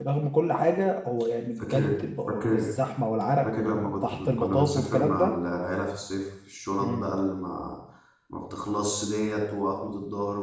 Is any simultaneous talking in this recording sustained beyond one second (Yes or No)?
Yes